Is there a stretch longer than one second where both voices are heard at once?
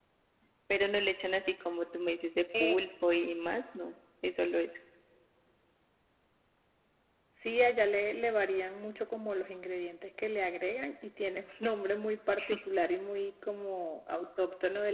No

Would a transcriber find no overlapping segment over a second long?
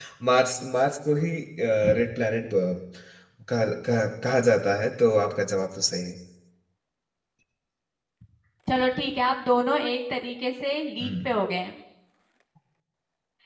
Yes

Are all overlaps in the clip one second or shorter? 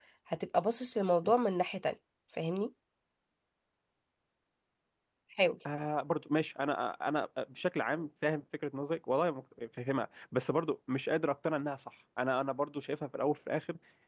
Yes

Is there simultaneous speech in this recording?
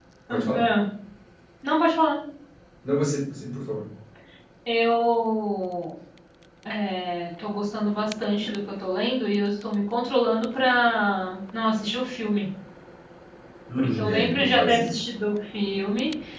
Yes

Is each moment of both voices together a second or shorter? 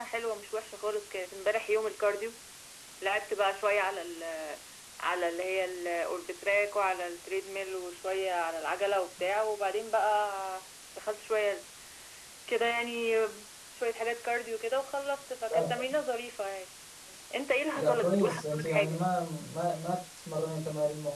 No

